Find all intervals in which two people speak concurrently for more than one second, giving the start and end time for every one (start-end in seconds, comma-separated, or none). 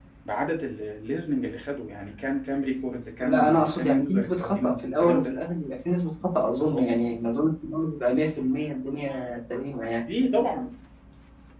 3.2-5.4